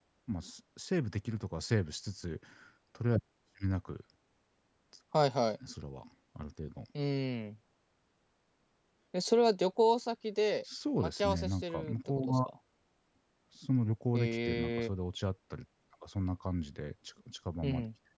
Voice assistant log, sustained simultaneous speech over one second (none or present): present